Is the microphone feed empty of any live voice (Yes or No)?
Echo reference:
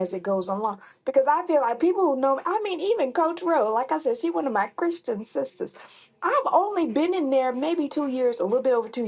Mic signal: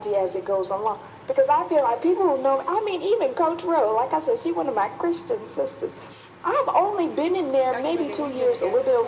No